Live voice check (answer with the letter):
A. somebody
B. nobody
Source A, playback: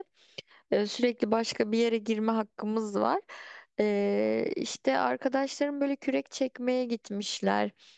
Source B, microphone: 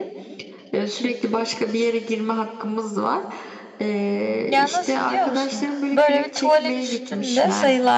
A